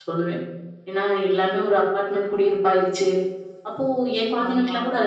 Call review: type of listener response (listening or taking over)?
listening